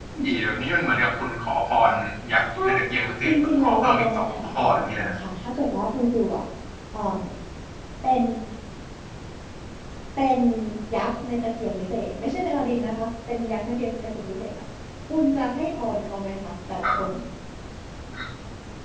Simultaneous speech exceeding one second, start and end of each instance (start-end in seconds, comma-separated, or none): 3.2-5.2